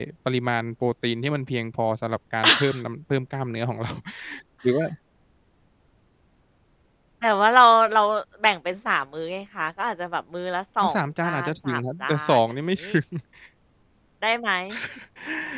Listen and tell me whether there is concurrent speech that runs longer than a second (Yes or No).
Yes